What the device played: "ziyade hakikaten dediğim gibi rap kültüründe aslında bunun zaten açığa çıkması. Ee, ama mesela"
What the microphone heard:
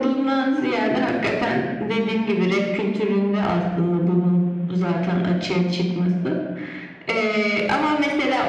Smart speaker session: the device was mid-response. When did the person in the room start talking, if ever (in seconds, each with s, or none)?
none